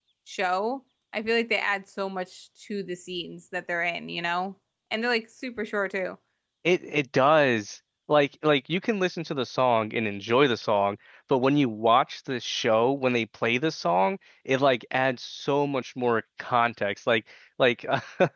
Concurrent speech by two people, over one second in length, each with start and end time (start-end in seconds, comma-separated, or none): none